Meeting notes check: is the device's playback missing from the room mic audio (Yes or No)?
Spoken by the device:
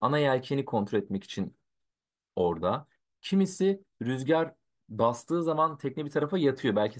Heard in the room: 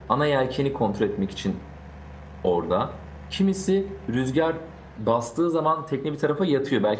No